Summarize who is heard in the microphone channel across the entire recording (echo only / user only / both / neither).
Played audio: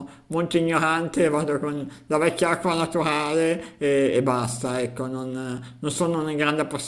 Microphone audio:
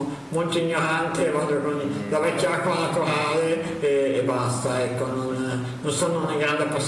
both